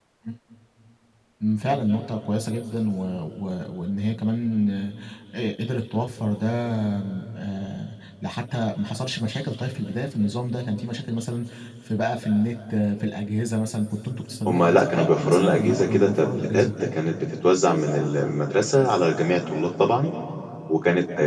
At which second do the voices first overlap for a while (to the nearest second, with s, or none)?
14 s